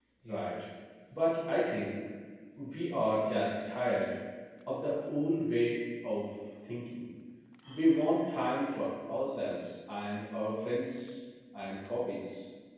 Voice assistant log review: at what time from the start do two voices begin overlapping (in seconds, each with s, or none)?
none